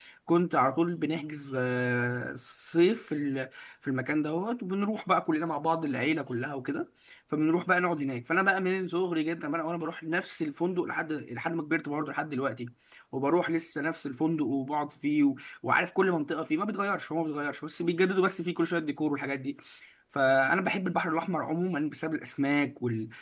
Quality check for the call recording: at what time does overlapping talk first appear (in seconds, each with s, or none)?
none